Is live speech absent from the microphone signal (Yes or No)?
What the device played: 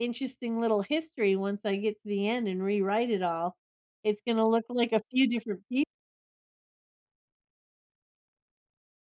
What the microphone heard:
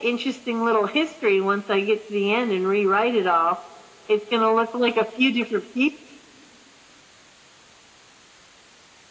Yes